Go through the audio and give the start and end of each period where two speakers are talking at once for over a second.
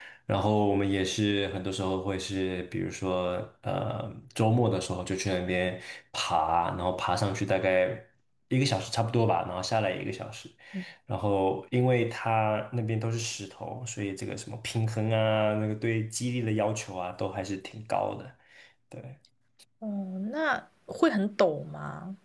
none

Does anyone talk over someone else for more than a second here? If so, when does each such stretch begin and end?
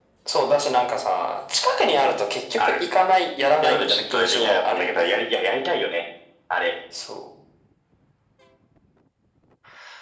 3.6-5.1

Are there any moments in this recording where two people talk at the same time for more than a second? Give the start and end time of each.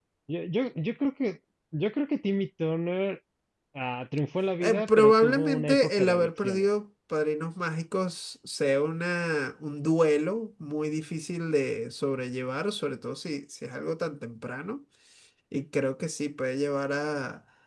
4.6-6.7

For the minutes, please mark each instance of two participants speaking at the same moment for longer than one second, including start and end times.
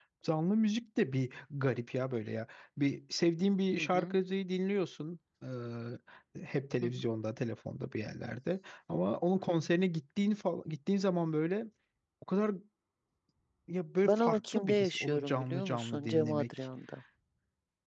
14.0-16.7

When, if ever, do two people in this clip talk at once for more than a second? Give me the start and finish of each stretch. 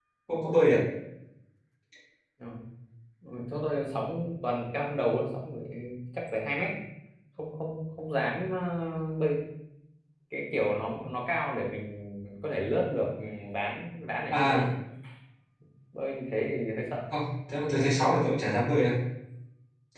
none

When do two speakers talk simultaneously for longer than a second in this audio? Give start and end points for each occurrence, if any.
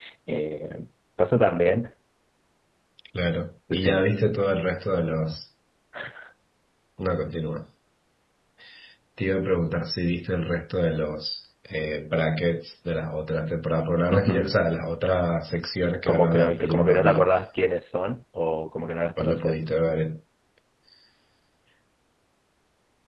16.1-17.3

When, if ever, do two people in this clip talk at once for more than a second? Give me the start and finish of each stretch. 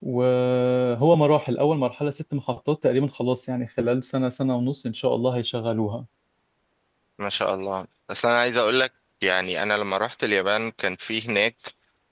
none

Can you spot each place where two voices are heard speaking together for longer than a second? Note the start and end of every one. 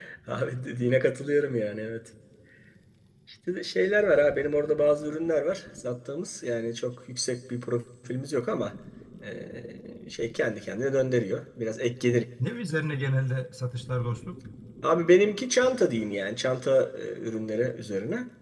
none

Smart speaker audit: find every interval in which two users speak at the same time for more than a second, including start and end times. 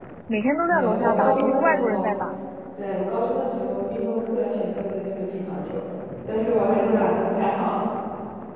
0.7-2.1

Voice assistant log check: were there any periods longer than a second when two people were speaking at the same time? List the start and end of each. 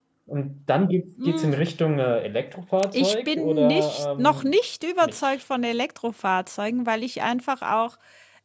2.9-4.5

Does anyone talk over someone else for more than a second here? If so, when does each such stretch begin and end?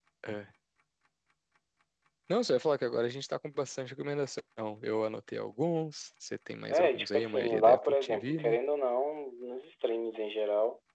6.7-8.6

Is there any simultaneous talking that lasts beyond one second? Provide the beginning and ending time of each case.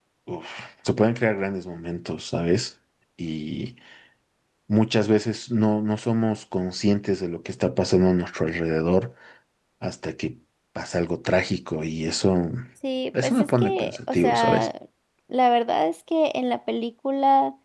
13.2-14.7

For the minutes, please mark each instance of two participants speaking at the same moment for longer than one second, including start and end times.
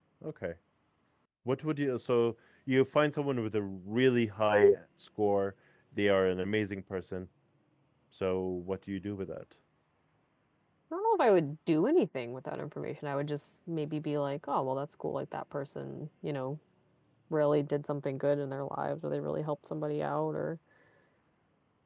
none

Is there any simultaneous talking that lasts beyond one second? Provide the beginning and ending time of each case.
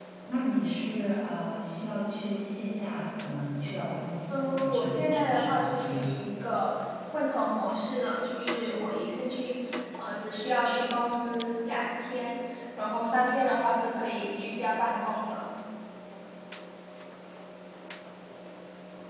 4.3-6.1

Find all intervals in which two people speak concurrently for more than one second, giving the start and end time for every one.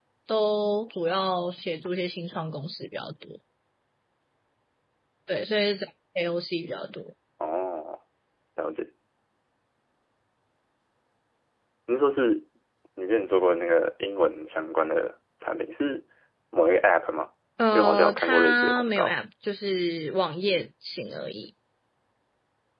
17.7-19.1

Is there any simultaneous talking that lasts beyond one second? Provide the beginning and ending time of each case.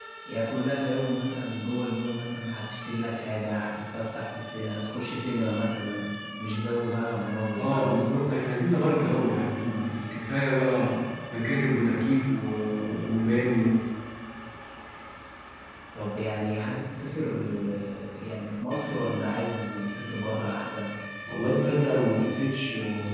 none

